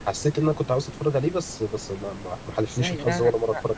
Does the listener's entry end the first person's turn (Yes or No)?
Yes